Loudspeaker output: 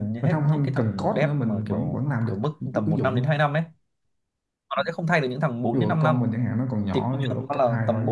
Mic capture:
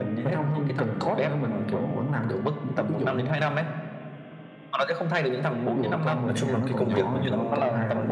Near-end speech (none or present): present